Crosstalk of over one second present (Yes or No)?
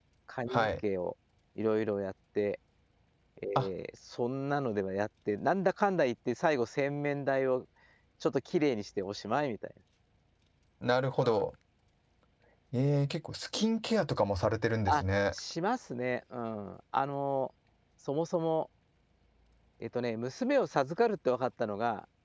No